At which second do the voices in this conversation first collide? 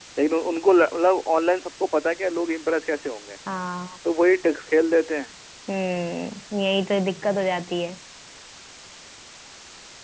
none

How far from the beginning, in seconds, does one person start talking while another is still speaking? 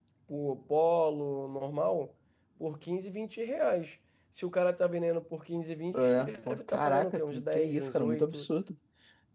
5.9 s

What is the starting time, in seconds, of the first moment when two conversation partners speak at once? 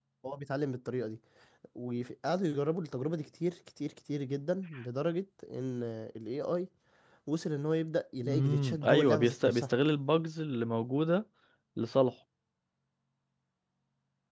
8.2 s

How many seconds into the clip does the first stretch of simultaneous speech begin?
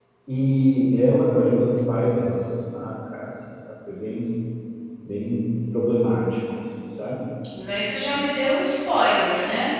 none

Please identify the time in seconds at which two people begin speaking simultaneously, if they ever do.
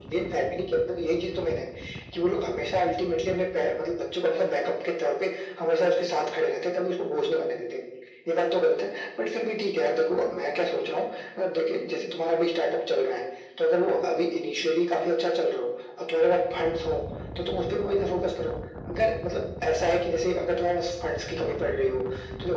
none

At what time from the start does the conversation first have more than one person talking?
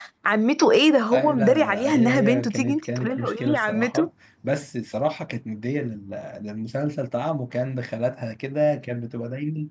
1.1 s

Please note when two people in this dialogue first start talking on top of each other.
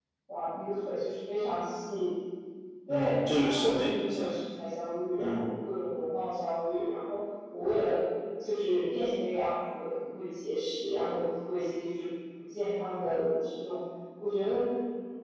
2.9 s

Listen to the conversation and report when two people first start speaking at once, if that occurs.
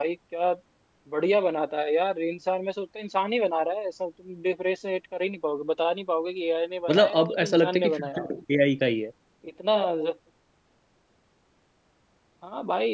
6.9 s

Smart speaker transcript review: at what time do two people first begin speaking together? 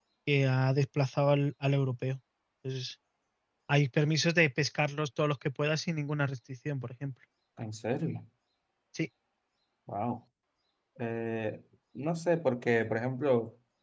none

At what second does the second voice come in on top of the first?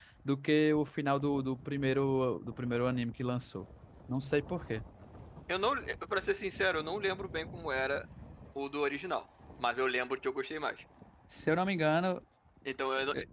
none

